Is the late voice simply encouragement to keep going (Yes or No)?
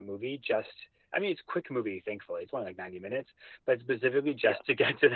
Yes